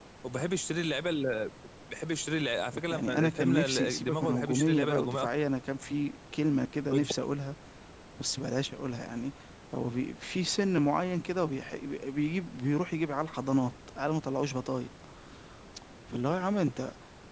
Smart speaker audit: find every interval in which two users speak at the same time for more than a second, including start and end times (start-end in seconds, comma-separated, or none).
2.9-5.3